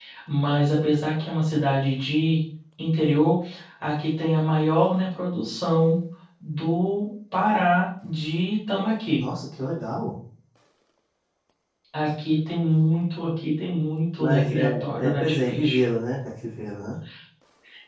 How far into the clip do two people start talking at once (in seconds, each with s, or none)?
14.2 s